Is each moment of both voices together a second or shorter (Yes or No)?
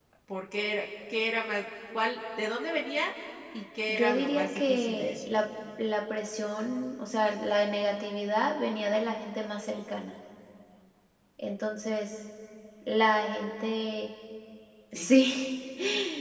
No